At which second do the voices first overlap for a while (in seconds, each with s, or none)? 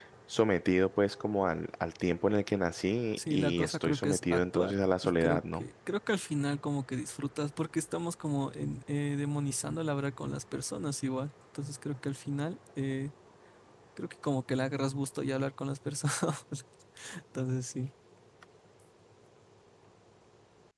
3.2 s